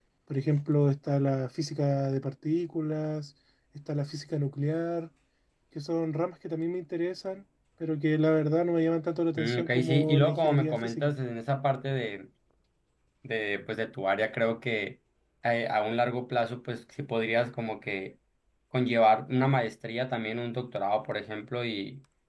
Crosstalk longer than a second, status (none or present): present